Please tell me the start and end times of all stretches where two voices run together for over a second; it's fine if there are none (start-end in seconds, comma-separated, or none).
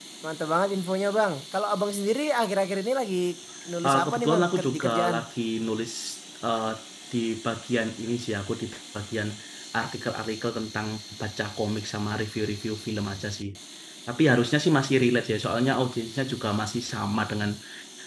3.9-5.2